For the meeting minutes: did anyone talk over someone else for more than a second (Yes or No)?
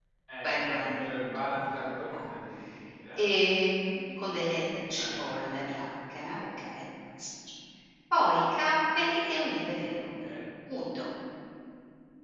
Yes